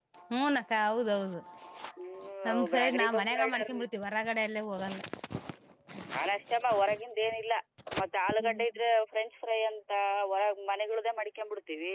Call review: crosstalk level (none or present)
present